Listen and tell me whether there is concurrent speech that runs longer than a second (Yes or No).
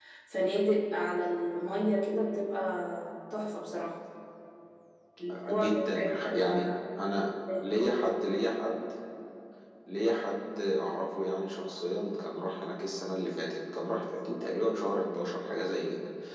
Yes